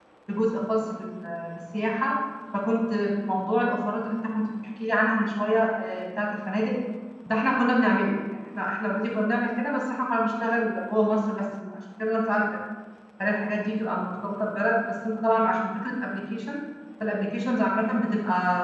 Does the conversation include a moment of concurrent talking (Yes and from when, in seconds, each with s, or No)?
No